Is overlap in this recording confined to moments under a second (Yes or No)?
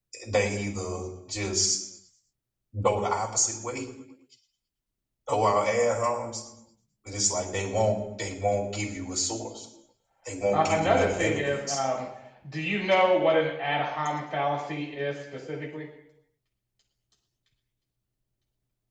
No